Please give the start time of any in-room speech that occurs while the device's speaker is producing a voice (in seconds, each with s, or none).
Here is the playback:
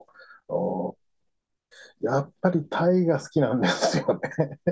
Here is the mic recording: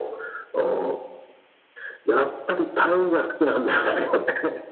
none